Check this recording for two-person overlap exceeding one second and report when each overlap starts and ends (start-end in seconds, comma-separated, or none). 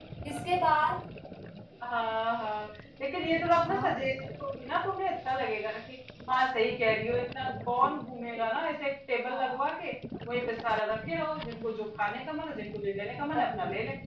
none